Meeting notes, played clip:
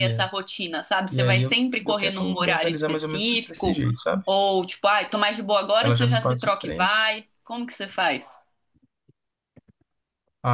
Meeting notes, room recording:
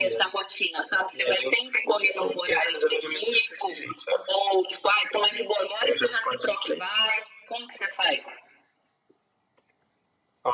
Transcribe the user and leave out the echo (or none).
none